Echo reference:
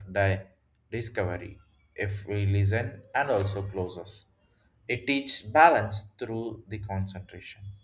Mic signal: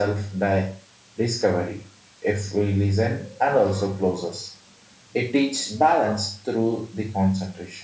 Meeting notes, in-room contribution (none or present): none